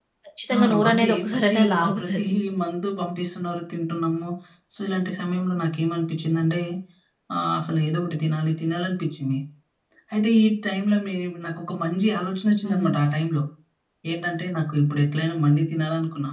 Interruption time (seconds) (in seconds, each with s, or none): 0.6 s